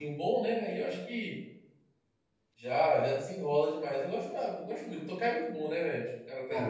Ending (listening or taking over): taking over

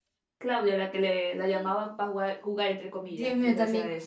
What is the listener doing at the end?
taking over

